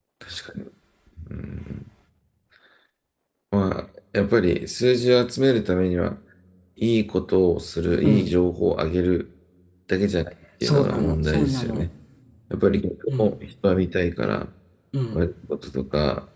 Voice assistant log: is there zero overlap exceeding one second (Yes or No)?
No